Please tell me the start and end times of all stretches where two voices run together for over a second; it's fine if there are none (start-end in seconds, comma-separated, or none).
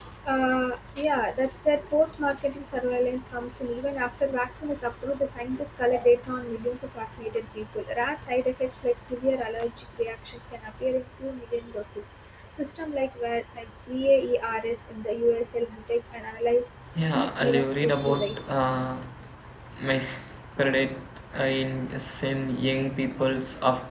17.1-18.5